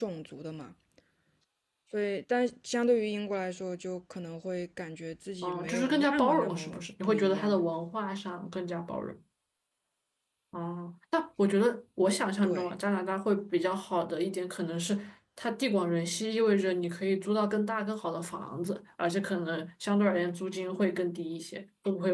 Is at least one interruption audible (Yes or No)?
Yes